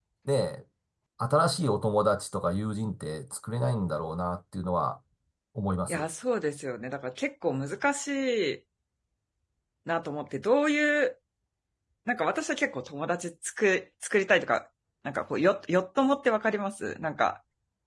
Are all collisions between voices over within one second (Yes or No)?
Yes